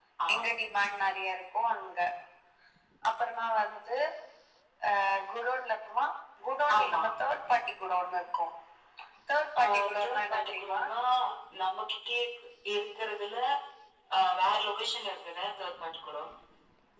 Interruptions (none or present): present